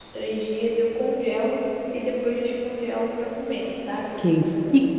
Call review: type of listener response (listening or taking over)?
taking over